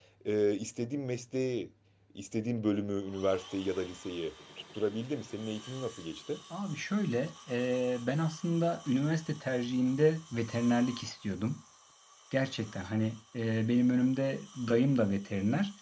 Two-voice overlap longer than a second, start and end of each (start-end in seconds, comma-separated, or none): none